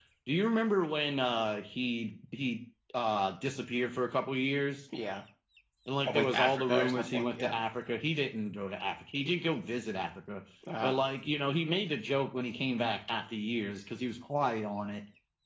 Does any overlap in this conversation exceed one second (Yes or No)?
Yes